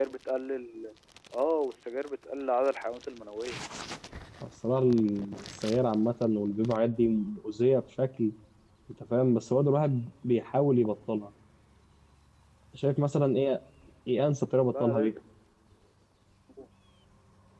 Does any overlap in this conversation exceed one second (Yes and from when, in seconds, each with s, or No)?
No